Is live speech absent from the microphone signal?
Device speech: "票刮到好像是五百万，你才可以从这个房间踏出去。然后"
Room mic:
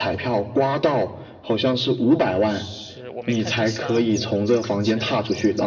No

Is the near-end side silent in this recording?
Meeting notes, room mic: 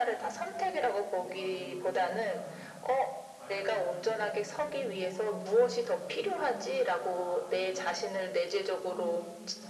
No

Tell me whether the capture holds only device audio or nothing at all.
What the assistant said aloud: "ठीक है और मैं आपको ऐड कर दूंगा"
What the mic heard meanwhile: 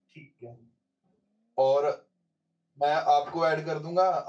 Yes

